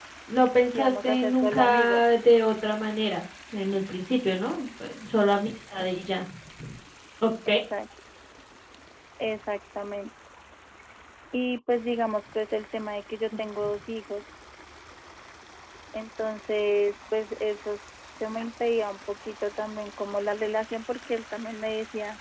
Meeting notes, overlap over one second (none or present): present